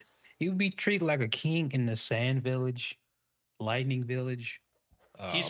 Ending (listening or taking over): taking over